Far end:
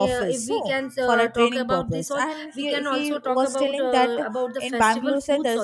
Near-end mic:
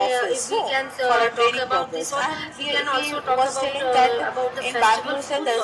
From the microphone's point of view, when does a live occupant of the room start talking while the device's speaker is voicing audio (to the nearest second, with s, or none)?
none